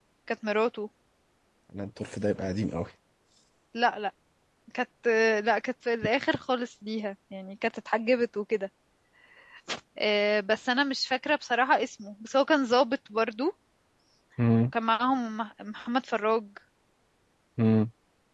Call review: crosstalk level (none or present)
none